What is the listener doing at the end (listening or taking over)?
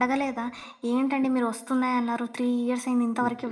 taking over